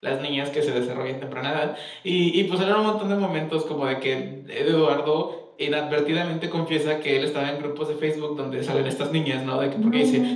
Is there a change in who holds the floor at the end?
No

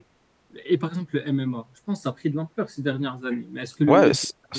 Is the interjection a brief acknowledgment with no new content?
No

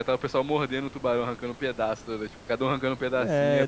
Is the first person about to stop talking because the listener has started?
Yes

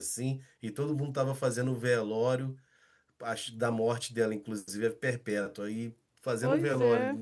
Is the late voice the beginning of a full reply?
No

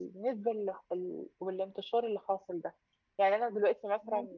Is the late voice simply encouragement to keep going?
Yes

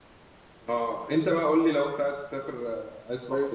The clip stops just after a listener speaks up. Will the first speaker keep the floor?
No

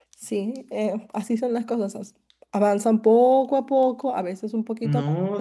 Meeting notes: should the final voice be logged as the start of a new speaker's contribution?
Yes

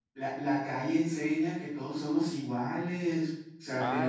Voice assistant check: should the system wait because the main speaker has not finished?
No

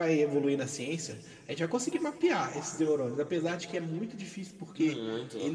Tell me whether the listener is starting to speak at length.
No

